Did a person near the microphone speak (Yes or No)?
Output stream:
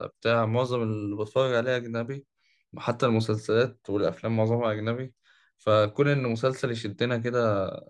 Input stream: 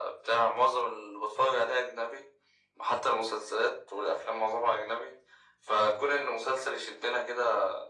No